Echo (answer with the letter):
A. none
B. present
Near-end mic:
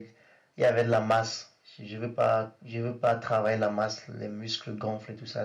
B